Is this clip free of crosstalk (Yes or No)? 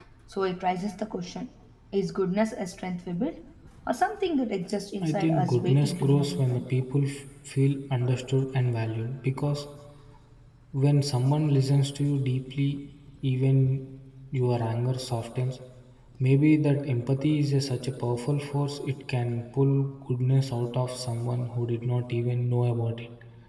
No